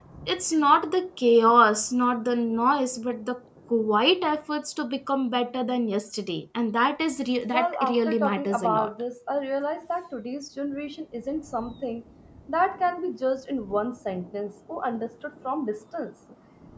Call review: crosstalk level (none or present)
present